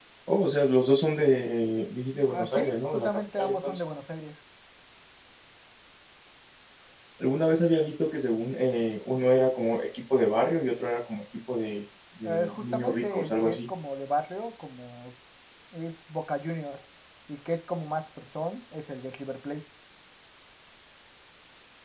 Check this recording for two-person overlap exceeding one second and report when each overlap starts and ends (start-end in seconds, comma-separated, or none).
2.3-3.8, 12.2-13.6